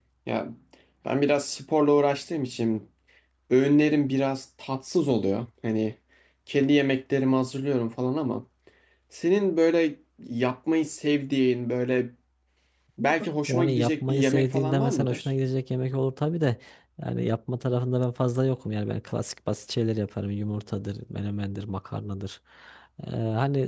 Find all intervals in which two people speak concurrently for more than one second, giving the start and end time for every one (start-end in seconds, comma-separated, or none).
13.5-15.3